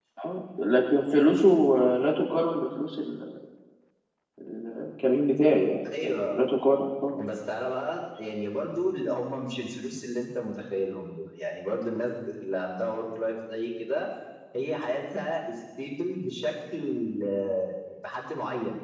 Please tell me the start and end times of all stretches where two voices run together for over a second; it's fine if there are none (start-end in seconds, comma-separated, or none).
none